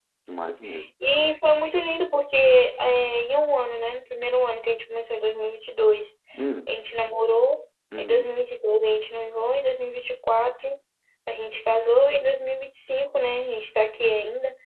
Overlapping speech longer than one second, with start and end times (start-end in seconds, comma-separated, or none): none